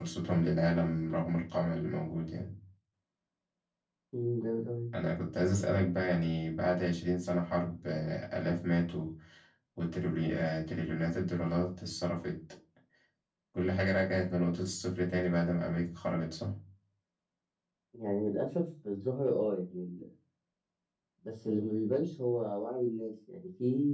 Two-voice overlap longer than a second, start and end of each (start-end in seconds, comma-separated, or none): none